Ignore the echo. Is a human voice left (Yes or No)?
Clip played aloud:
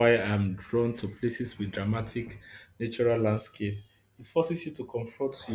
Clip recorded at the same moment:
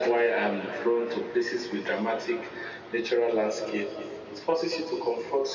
No